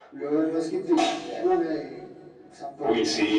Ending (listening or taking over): taking over